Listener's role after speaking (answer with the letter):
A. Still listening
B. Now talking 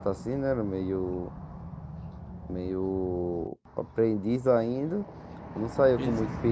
A